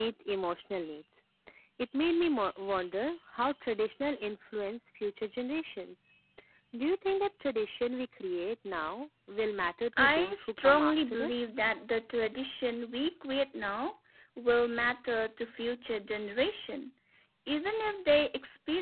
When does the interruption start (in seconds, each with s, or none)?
9.9 s